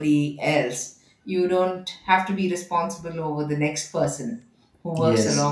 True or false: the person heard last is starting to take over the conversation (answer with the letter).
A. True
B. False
B